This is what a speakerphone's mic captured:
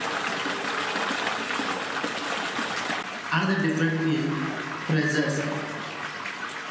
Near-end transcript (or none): Another different is pressures.